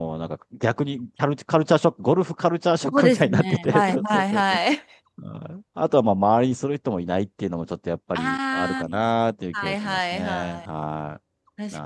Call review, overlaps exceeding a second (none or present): present